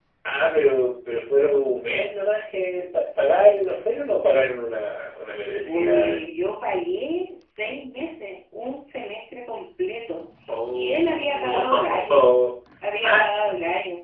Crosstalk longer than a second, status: present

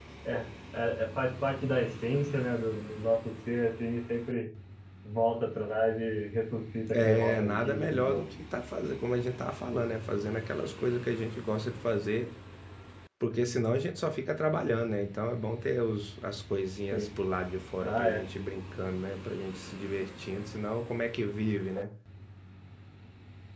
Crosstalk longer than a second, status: present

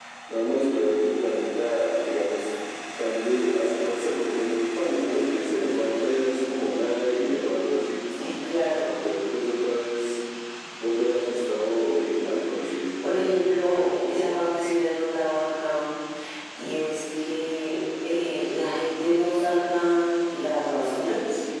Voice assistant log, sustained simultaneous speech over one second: none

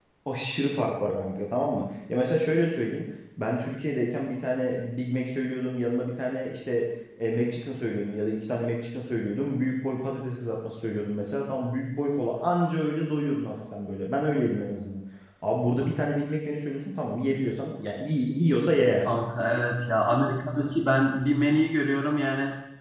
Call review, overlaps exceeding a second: none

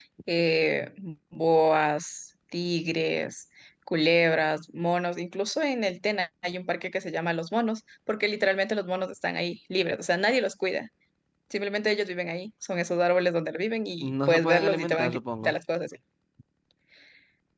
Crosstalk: present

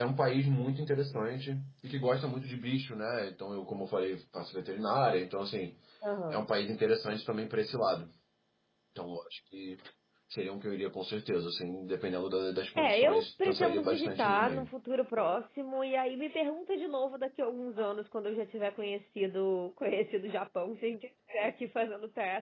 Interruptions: present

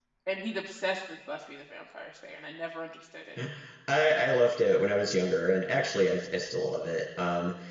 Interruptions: none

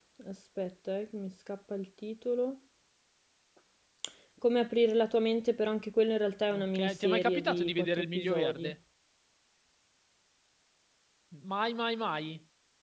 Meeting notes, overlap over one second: present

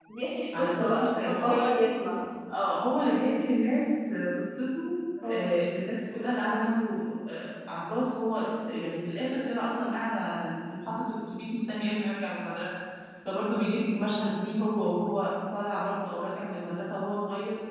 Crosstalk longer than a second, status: present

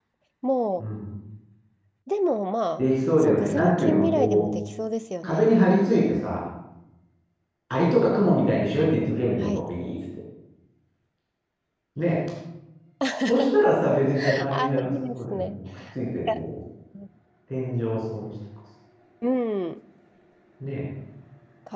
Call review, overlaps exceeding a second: present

